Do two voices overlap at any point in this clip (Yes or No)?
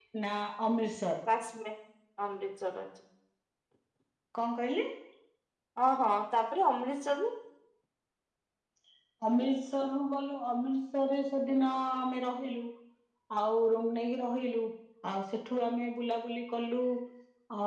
No